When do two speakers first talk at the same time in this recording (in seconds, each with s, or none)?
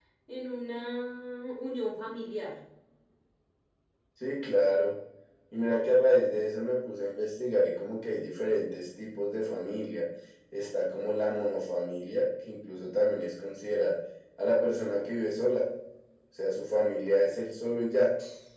none